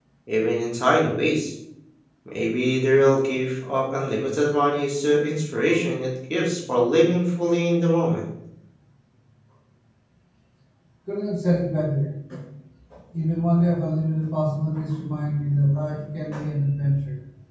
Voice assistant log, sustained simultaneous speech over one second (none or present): none